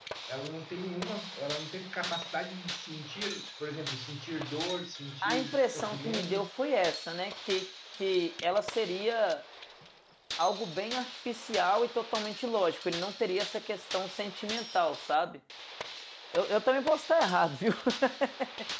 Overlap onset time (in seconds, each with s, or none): 5.2 s